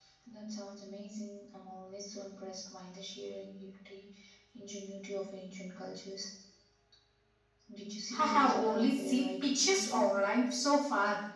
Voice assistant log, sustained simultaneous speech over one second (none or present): present